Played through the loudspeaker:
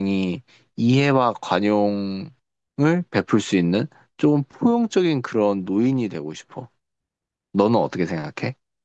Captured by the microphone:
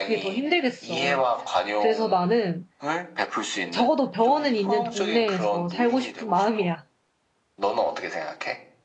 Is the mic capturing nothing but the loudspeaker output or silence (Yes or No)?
No